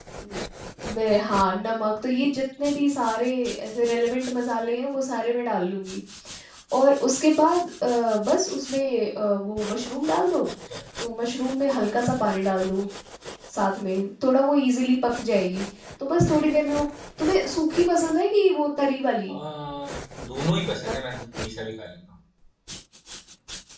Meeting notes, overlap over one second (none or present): none